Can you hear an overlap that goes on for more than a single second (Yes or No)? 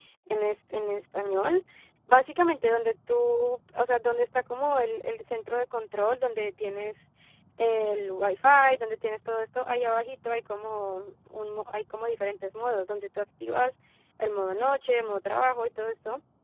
No